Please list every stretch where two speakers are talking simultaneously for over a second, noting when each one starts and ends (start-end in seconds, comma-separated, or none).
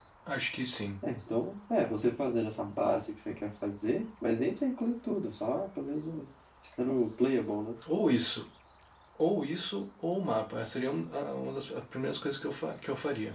none